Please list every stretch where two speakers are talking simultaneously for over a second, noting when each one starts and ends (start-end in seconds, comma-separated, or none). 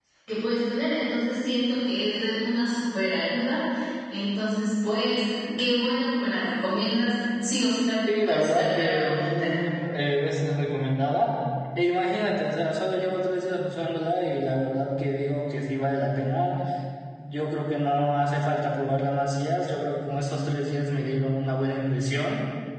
8.1-9.5